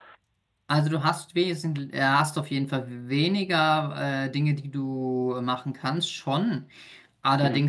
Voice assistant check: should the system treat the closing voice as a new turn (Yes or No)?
No